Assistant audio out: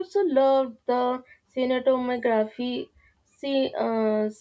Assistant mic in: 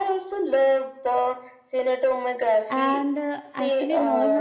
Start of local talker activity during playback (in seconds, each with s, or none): 2.7 s